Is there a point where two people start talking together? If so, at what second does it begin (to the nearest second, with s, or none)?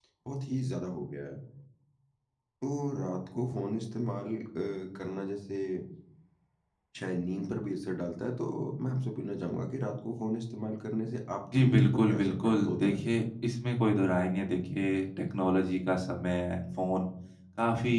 12 s